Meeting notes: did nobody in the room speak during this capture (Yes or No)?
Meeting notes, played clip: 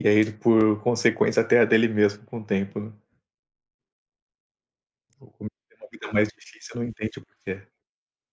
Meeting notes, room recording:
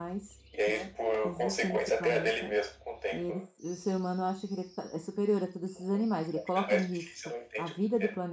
No